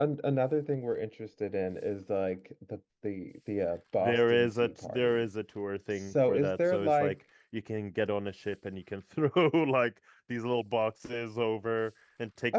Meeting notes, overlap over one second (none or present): present